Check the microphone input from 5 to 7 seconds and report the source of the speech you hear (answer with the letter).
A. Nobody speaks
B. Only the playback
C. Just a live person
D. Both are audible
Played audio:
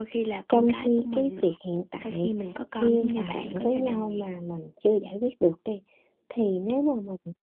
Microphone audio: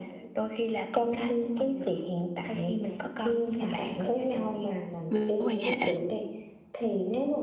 D